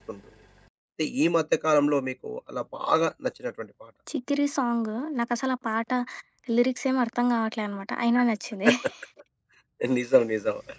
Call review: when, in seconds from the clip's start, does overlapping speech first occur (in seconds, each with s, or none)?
none